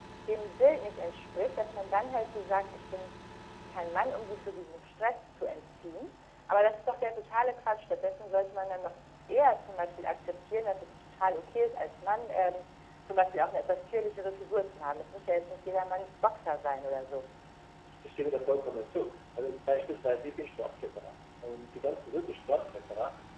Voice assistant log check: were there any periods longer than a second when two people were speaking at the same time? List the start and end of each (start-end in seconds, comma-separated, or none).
none